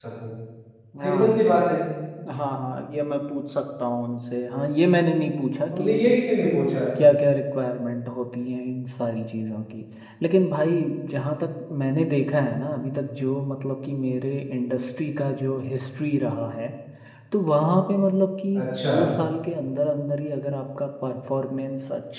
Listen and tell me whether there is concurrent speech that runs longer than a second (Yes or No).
No